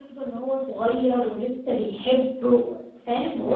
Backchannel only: No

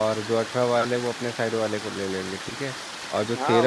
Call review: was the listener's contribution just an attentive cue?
Yes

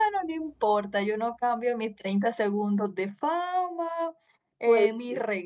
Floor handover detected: No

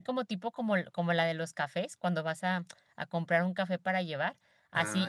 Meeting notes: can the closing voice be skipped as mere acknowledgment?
Yes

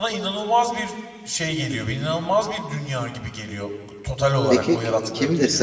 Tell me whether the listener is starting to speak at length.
Yes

